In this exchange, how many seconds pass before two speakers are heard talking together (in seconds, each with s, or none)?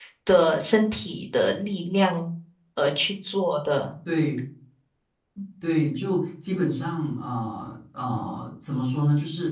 none